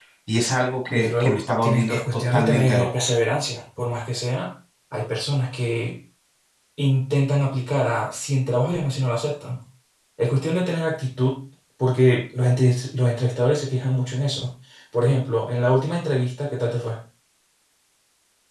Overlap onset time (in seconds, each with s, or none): 1.0 s